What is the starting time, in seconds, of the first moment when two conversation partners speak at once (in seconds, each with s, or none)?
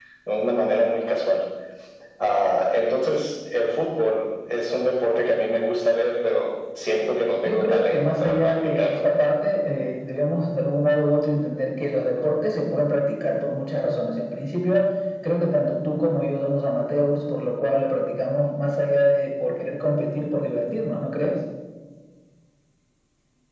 7.5 s